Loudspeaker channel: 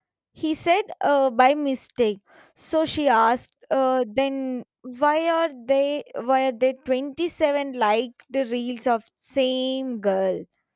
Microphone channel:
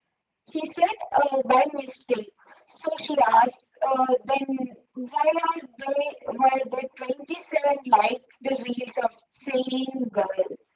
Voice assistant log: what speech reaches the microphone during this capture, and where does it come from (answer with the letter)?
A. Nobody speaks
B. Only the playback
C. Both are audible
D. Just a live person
B